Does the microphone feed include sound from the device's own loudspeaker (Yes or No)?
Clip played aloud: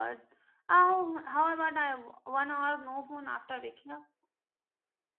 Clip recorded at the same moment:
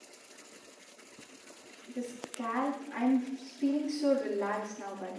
No